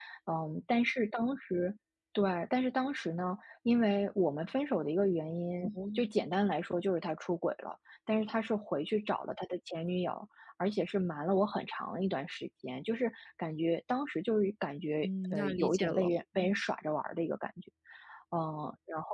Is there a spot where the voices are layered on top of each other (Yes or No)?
Yes